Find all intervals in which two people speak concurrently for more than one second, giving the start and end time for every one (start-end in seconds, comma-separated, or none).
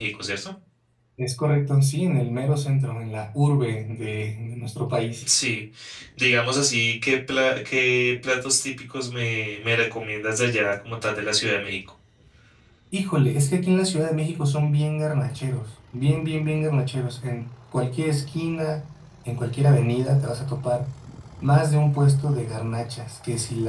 none